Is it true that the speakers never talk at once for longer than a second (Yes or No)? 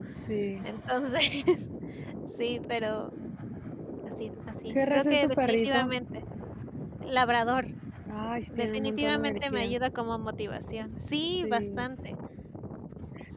No